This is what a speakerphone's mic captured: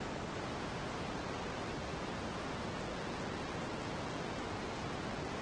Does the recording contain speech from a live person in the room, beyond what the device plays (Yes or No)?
No